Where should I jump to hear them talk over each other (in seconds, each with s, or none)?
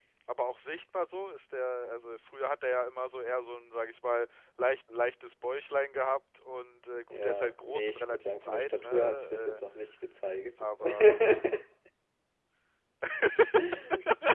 7.1 s